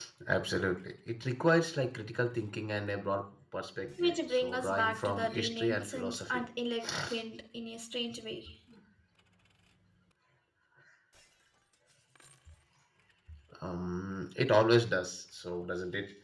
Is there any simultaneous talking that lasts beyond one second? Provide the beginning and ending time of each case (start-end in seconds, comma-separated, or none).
4.0-6.4